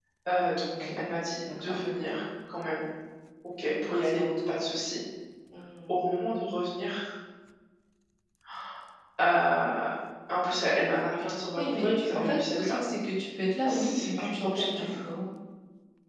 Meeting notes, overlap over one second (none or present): present